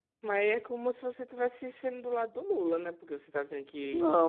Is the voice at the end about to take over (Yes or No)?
Yes